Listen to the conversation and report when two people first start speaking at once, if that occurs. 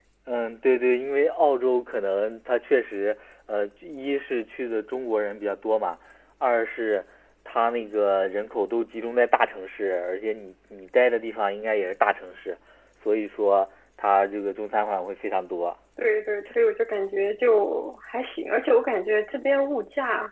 none

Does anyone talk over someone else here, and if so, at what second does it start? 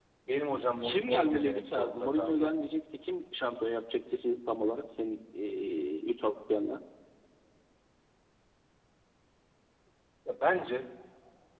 0.8 s

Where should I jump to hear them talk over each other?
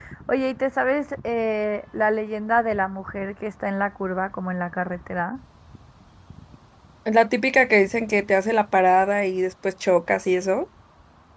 none

